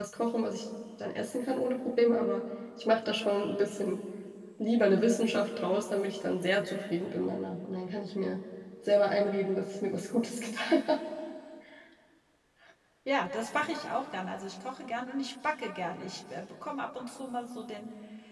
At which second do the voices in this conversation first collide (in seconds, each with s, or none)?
none